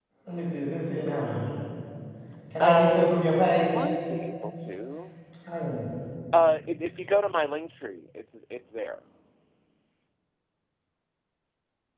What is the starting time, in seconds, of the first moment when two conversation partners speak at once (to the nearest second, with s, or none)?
3 s